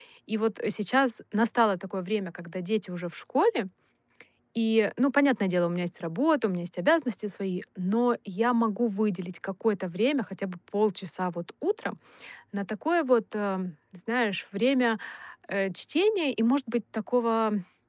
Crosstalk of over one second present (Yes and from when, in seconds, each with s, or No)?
No